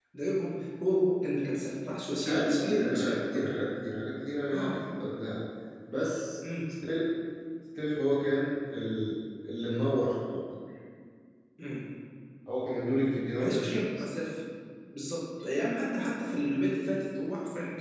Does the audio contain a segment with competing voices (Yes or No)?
Yes